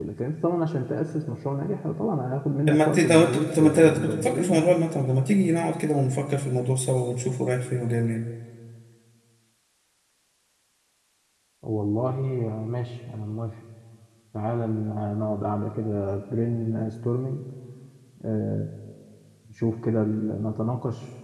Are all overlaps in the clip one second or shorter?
No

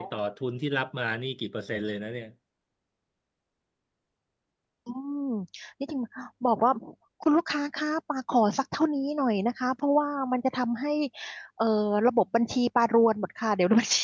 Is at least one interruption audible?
No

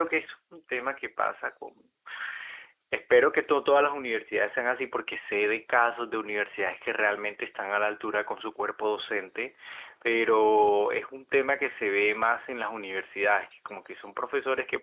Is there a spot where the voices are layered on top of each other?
No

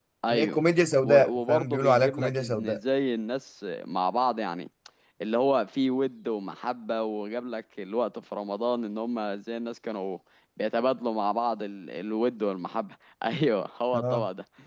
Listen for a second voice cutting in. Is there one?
Yes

